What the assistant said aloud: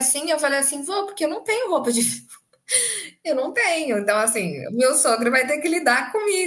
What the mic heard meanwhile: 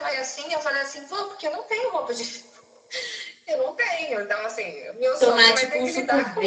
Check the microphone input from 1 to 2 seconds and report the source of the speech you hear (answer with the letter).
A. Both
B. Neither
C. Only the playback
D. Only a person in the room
C